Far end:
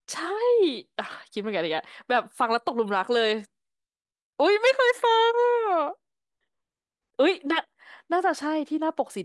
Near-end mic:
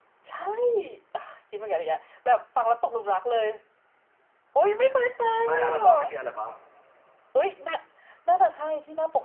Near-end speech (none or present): present